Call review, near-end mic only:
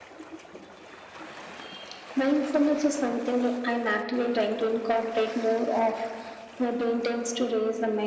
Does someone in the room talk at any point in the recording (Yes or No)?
No